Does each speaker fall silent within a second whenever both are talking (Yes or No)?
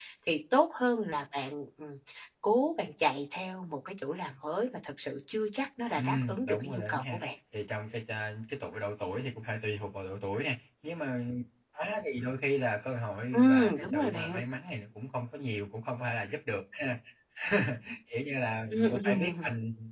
No